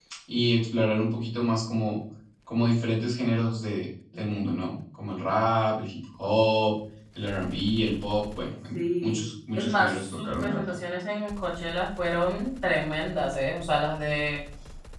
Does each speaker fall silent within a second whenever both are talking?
No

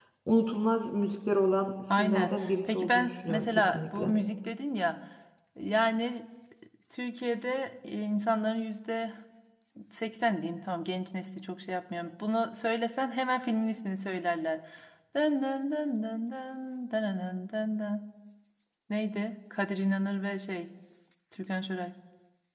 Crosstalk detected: Yes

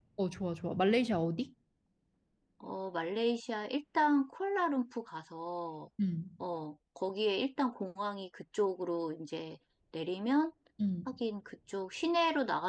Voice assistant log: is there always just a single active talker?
Yes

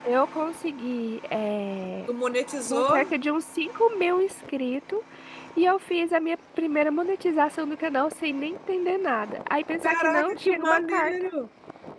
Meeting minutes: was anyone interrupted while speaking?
Yes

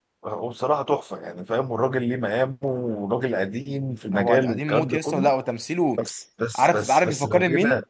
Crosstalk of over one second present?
Yes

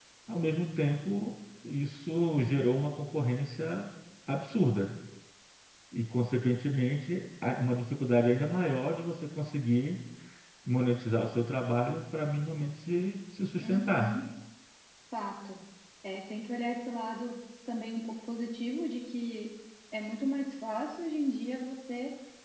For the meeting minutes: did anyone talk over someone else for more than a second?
No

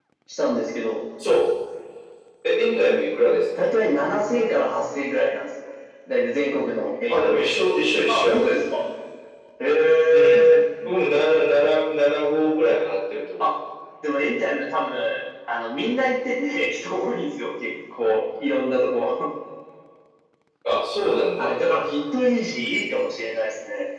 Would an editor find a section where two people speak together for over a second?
No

